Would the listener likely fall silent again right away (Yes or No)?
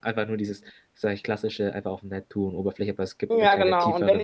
No